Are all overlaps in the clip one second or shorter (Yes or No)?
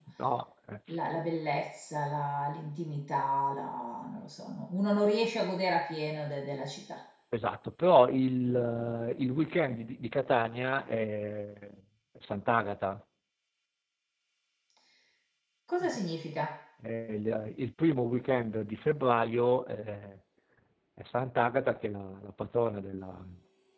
Yes